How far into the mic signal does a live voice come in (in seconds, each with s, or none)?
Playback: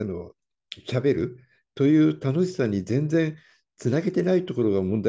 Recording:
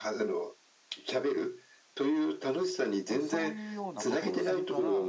3.1 s